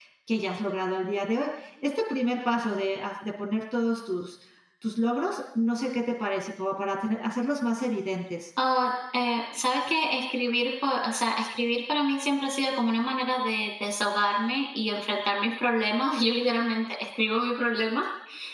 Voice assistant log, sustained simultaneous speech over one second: none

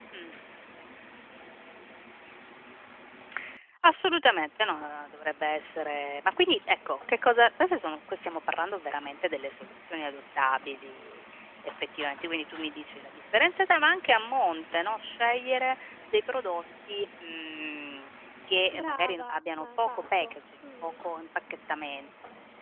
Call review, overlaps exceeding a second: present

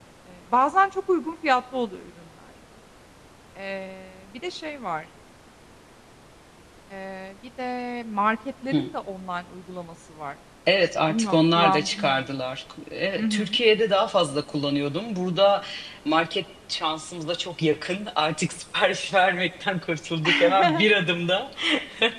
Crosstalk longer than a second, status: present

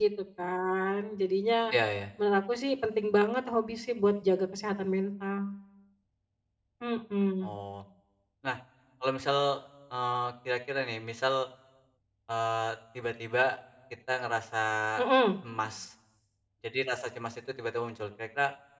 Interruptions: none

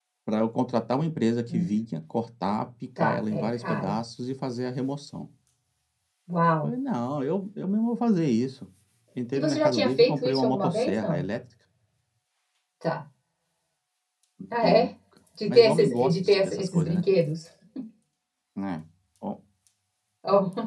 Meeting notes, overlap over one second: present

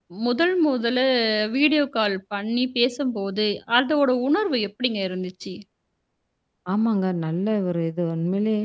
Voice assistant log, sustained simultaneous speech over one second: none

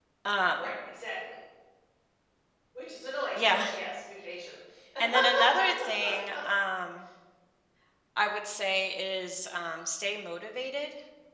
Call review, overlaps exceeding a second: none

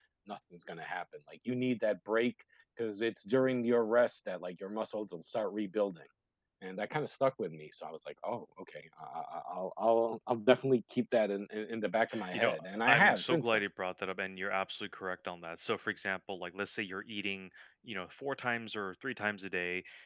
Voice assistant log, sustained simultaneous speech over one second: present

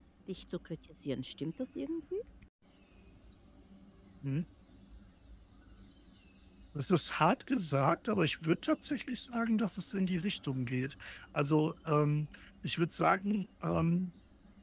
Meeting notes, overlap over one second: none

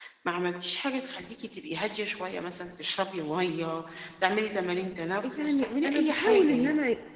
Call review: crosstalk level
present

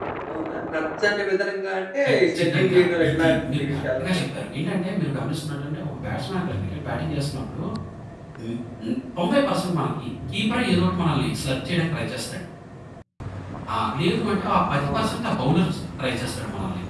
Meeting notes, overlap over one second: present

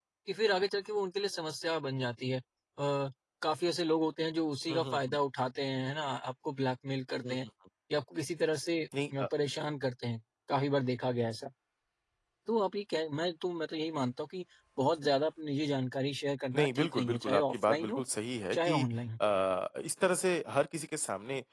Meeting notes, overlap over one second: present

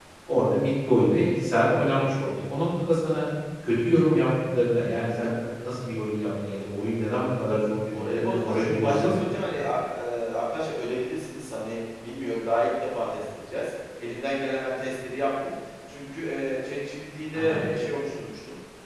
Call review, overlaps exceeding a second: present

